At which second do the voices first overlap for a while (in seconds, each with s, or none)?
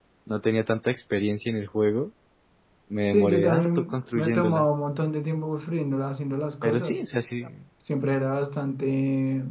3.0 s